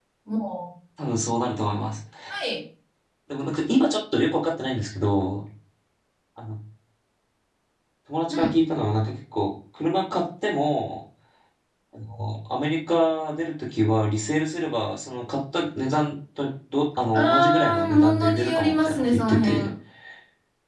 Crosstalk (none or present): present